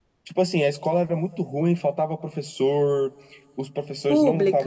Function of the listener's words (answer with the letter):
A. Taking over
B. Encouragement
B